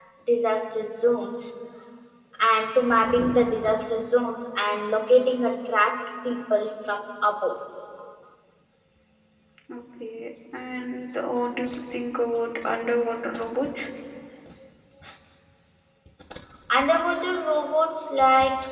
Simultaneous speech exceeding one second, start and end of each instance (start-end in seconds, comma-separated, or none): none